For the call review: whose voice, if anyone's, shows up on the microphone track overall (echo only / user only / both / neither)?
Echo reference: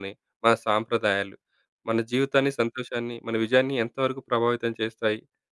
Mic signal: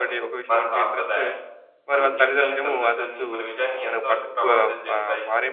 both